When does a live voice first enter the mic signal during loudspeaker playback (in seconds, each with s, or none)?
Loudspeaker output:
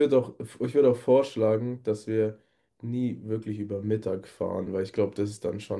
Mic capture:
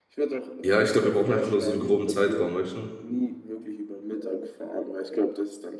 0.6 s